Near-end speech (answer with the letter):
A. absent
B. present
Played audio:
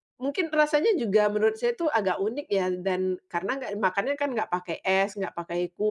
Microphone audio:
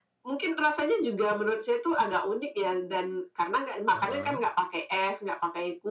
B